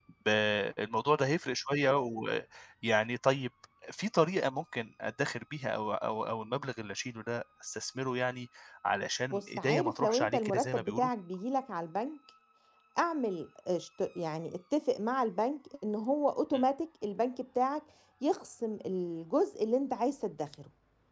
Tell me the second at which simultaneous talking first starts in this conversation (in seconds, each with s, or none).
9.3 s